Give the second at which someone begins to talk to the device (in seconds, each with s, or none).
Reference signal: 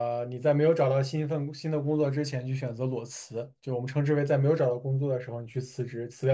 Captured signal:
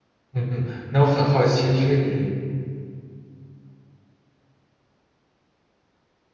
0.3 s